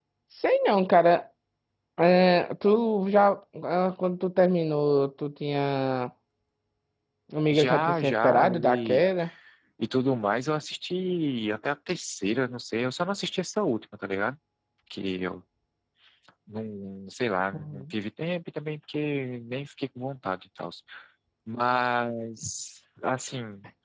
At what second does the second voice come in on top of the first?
7.5 s

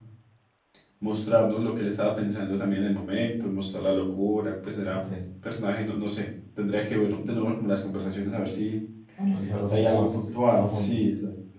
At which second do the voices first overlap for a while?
9.7 s

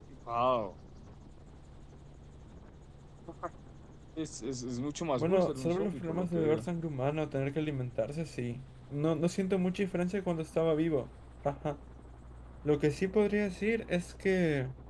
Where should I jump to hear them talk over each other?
5.2 s

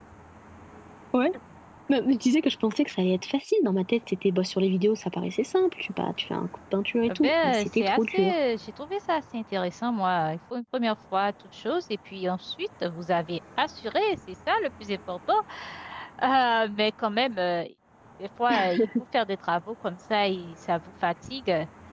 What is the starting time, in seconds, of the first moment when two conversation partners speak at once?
7.1 s

